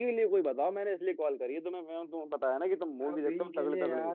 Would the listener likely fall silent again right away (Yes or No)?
No